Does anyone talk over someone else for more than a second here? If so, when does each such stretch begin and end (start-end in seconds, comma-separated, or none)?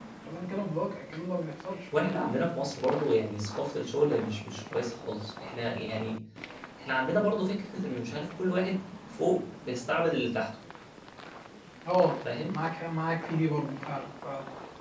none